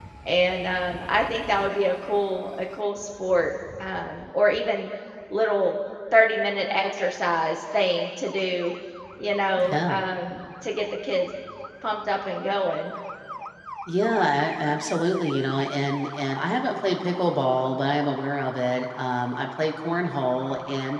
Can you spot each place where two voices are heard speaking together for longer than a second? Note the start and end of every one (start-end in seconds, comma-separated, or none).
none